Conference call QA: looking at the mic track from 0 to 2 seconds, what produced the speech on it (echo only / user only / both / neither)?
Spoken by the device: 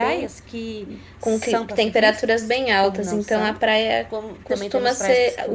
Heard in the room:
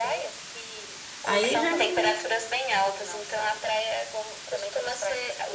both